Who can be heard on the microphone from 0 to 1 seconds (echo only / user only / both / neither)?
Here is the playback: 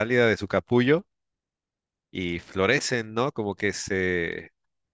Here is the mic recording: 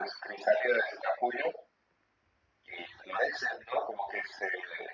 echo only